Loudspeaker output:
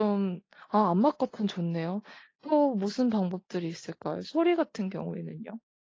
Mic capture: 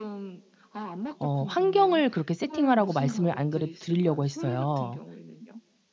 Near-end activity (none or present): present